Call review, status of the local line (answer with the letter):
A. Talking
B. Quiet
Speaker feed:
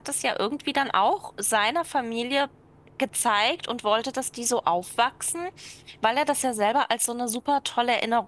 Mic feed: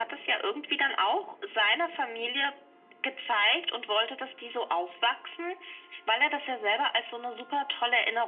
B